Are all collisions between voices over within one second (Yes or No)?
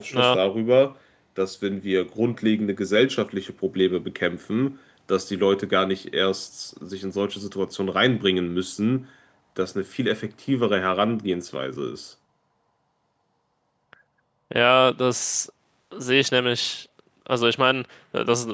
Yes